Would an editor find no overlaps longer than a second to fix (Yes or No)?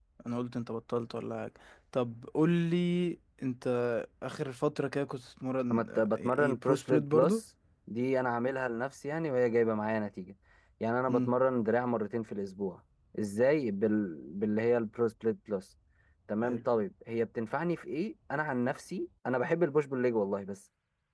No